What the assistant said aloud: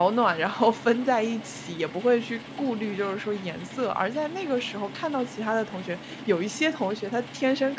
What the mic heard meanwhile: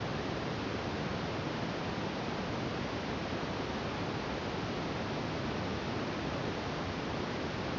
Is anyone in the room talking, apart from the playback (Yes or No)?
No